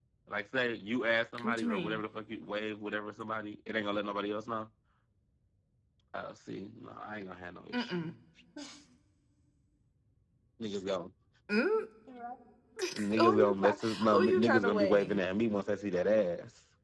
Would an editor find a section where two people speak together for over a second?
Yes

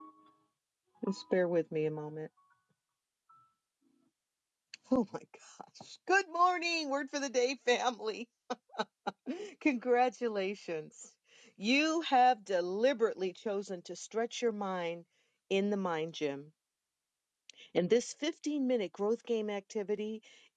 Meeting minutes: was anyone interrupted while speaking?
No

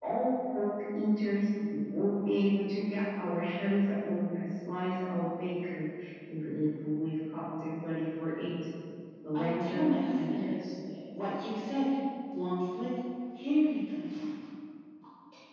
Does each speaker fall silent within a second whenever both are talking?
No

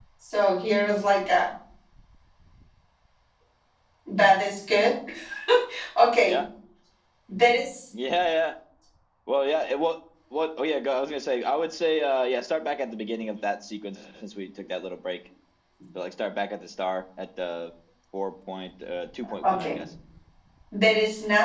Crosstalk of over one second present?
No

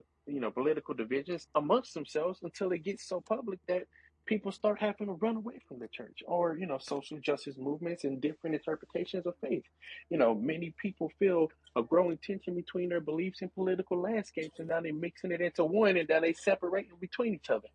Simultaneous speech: No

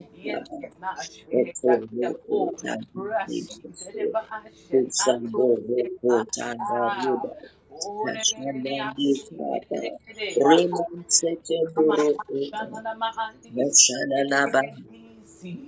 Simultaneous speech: Yes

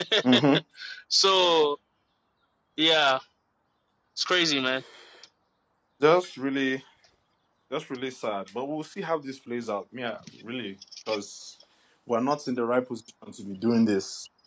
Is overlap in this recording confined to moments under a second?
Yes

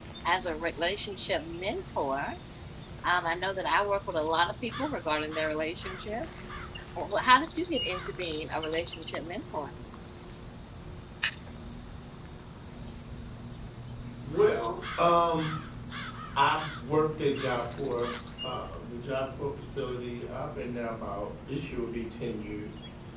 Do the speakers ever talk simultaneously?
No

